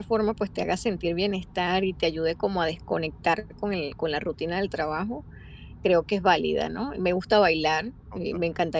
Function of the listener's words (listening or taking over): listening